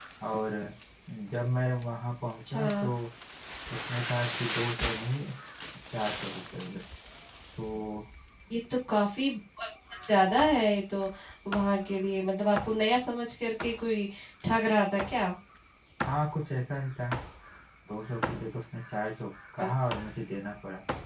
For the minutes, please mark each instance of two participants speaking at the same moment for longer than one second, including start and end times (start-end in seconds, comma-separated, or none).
none